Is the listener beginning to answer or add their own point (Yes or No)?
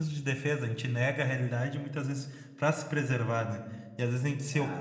No